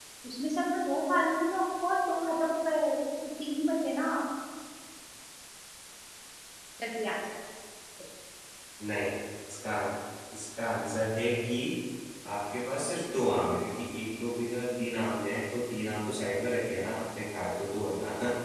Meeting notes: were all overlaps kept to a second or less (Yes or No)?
Yes